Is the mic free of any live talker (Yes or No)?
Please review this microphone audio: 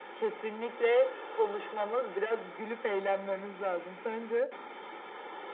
Yes